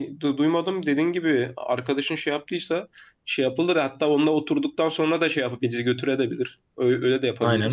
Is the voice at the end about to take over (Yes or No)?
Yes